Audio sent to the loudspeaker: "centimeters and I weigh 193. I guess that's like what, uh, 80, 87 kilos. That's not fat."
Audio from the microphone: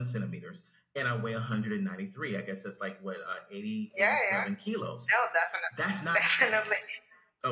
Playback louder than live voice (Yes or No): No